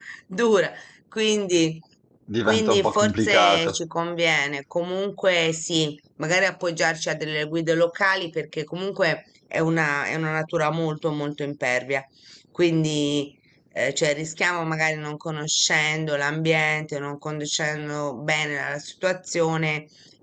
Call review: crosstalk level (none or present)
present